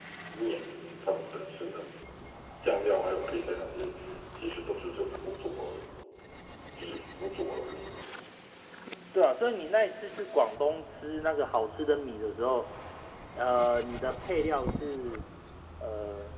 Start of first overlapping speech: none

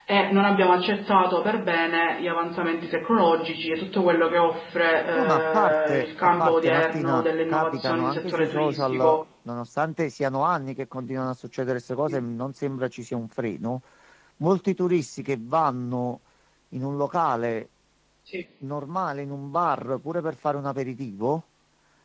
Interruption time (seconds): 5.1 s

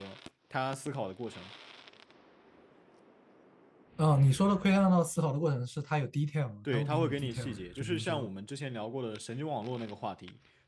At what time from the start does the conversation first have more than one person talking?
6.7 s

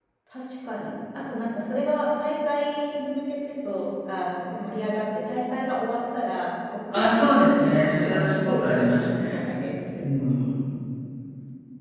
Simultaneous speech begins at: 6.9 s

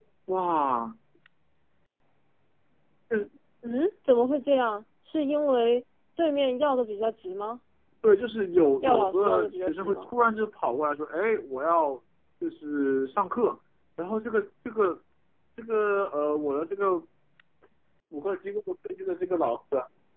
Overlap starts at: 8.8 s

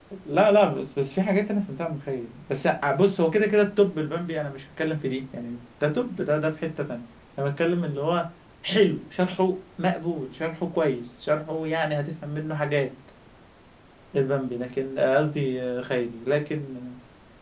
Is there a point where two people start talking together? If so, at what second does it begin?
none

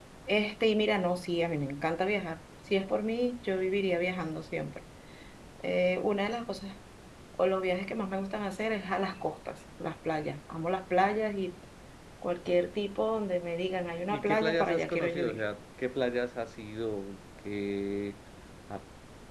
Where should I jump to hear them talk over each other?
14.1 s

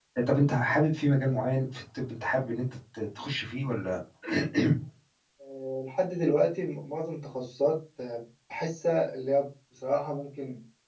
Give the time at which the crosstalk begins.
none

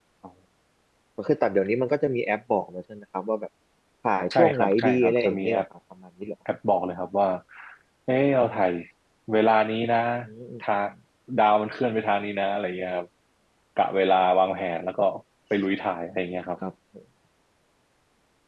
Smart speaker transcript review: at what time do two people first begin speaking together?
4.3 s

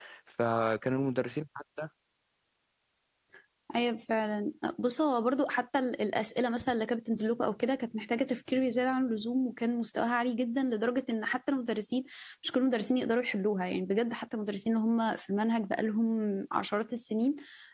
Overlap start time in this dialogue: none

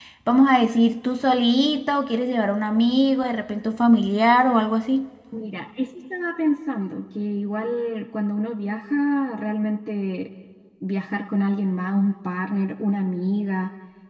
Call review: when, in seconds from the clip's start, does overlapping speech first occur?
none

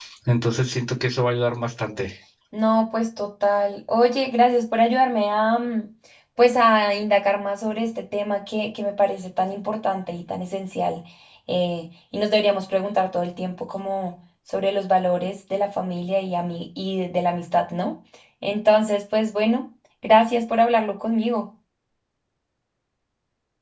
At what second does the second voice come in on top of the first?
none

